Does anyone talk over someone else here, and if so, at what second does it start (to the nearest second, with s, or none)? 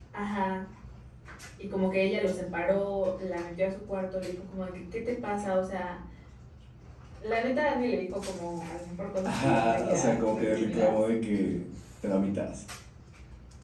9 s